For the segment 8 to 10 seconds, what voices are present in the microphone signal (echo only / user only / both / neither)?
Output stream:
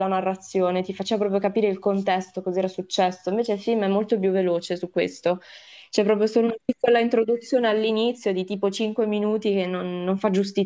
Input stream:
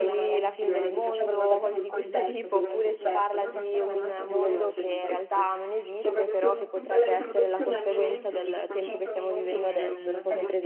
both